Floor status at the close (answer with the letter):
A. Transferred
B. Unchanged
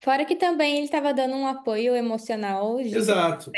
A